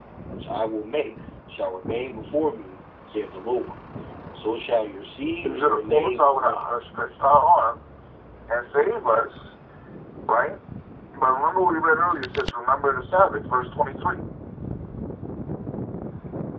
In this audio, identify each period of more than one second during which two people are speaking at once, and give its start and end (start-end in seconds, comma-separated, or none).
5.4-6.6